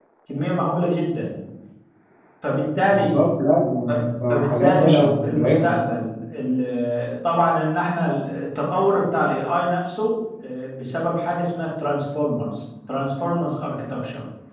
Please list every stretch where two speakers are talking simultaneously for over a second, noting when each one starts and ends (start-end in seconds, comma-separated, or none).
4.3-5.6